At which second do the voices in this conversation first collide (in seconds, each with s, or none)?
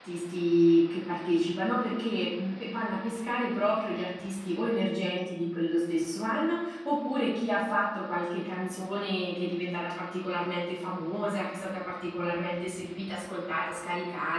none